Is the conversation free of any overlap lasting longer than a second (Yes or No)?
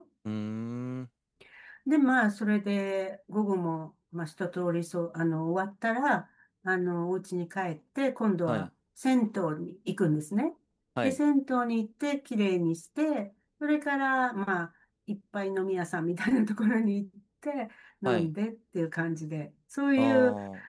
Yes